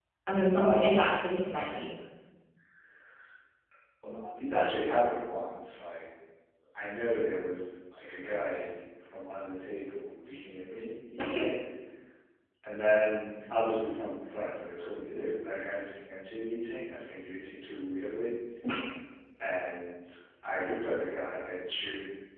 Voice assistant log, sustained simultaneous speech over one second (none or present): none